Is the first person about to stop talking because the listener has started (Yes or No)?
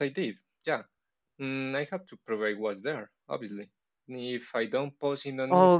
Yes